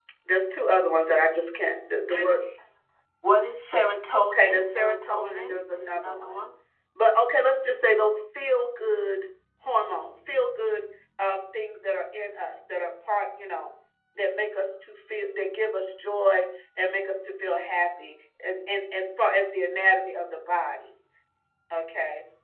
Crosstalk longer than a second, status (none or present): present